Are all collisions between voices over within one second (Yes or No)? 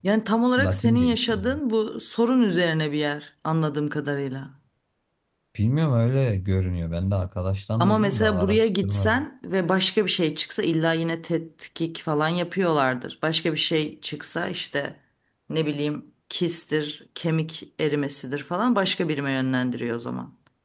No